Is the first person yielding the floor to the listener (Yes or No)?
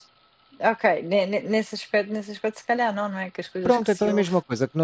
Yes